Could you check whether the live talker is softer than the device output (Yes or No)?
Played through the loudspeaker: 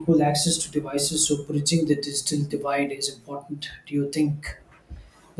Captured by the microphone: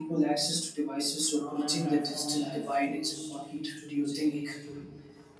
Yes